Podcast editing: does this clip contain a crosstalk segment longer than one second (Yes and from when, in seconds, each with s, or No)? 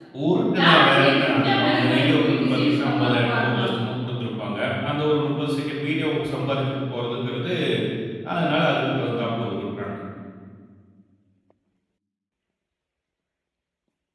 Yes, from 0.6 s